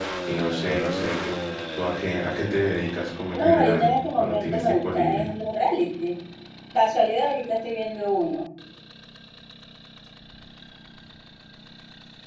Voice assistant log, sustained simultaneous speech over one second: present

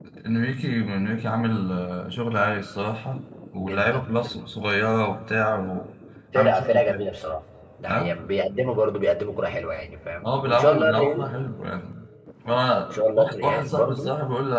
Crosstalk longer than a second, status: present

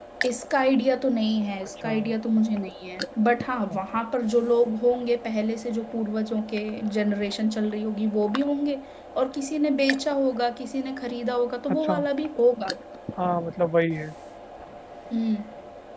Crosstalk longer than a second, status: none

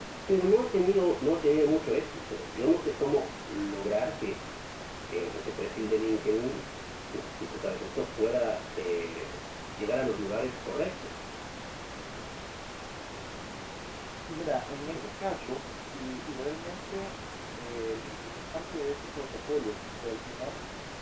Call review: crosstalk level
none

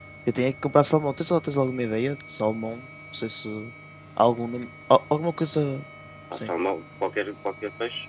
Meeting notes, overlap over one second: none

